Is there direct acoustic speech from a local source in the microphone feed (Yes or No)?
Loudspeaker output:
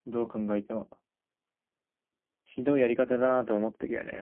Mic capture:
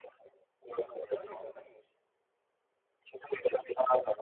Yes